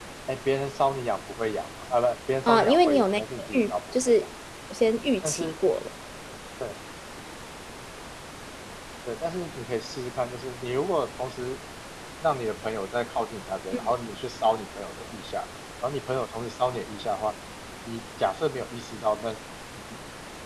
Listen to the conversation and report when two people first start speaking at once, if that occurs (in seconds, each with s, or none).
2.5 s